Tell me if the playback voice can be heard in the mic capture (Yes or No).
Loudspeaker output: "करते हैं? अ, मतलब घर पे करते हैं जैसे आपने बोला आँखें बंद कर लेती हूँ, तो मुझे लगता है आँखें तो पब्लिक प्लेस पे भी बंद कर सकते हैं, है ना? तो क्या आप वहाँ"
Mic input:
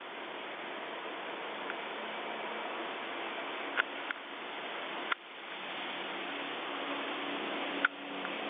No